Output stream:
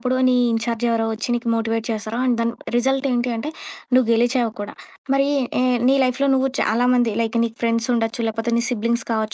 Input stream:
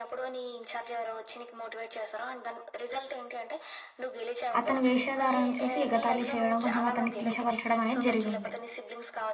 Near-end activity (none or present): present